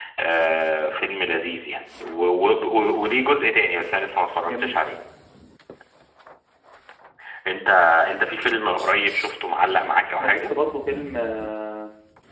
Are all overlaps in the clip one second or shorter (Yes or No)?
Yes